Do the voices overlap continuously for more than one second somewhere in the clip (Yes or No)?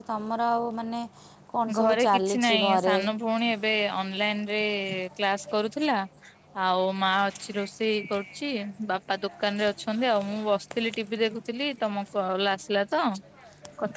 Yes